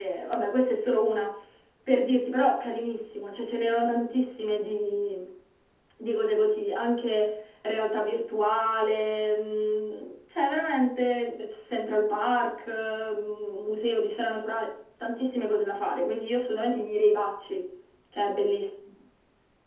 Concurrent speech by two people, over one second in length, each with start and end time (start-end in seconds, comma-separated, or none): none